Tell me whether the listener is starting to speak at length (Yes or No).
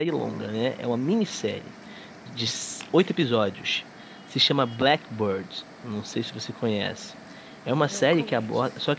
No